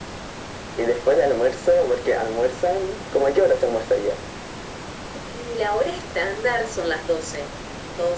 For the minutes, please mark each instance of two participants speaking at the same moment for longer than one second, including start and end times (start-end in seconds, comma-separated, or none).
none